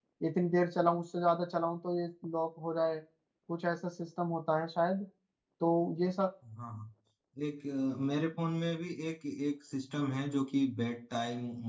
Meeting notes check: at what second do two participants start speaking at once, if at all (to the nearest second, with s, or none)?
none